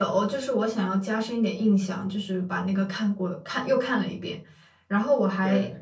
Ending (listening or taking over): listening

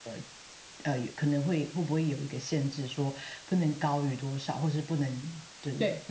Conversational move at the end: taking over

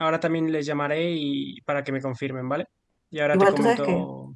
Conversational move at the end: taking over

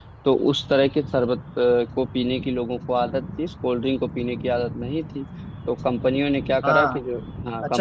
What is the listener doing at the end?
taking over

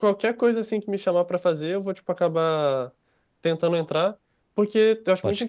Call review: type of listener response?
listening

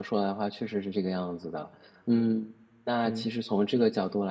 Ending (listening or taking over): listening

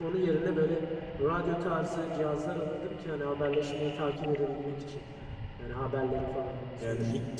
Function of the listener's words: taking over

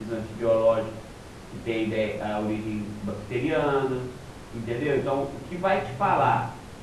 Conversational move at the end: listening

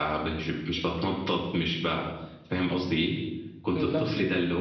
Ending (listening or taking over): listening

